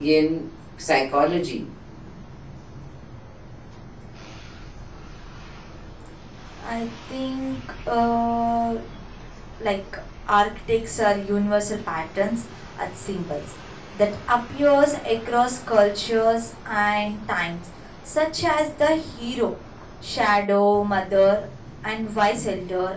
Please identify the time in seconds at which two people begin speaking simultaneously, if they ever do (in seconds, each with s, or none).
none